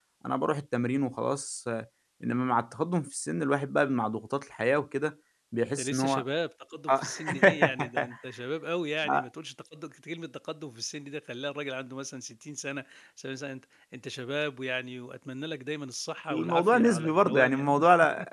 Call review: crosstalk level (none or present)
present